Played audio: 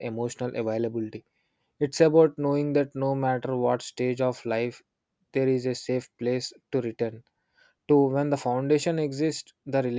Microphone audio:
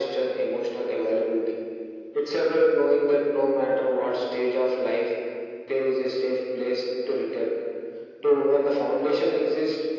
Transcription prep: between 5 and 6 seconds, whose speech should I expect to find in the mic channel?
echo only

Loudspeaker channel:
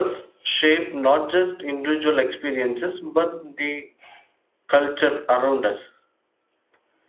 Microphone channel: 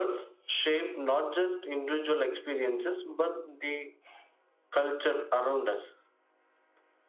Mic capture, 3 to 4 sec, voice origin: echo only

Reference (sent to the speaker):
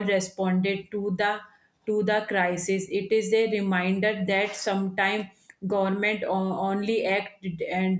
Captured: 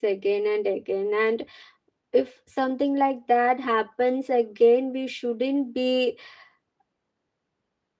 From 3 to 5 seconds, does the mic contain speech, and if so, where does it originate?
user only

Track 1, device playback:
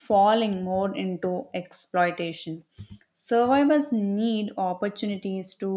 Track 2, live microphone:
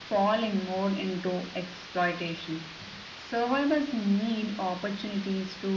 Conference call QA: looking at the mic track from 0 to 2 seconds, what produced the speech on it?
echo only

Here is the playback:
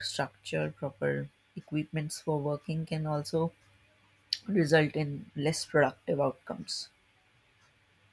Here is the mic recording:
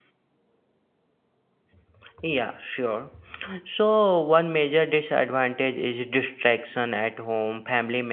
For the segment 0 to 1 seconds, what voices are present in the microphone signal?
neither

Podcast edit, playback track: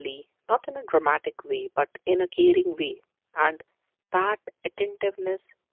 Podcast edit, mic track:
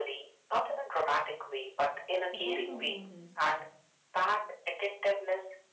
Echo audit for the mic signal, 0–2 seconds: echo only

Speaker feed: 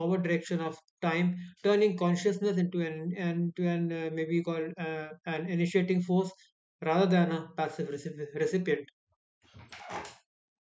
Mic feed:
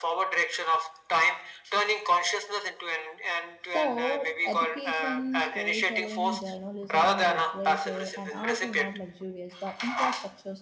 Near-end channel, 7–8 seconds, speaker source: both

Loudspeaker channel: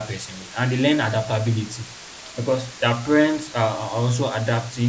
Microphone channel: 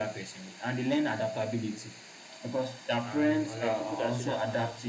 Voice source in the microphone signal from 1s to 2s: echo only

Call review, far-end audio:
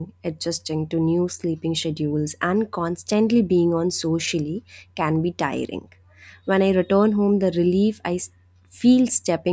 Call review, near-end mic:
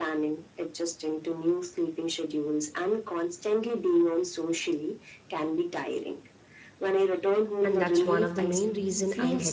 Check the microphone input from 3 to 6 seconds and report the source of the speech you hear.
echo only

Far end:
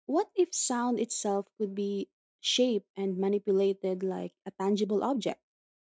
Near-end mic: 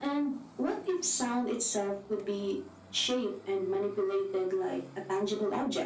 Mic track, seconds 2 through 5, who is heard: echo only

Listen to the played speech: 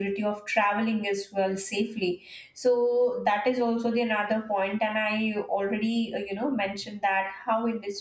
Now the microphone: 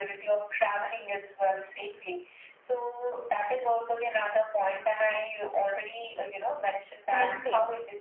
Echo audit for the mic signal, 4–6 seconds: echo only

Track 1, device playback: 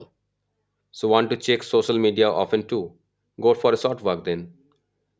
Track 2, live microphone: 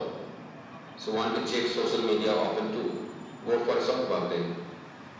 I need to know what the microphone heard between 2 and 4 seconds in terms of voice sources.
echo only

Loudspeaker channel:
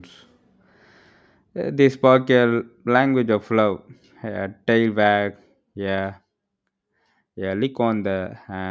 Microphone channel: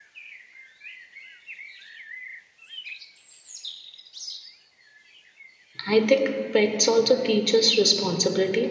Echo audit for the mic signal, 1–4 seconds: neither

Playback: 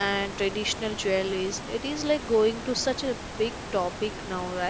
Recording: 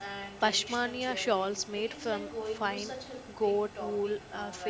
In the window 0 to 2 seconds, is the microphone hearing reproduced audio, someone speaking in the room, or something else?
both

